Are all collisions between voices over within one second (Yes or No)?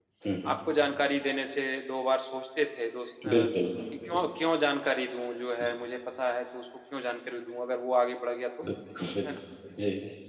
Yes